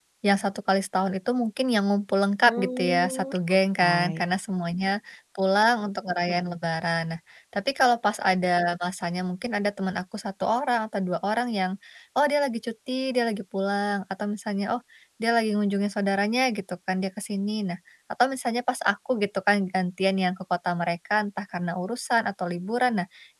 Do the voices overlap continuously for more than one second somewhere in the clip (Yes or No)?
Yes